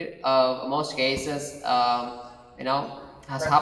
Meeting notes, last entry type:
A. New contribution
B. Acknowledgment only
B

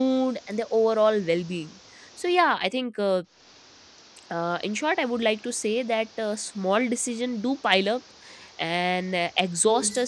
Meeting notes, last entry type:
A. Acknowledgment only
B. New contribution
A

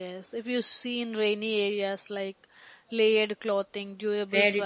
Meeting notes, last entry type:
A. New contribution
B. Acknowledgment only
A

